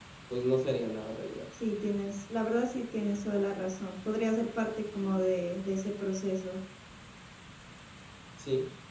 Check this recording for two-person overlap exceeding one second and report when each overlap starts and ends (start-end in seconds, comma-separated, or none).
none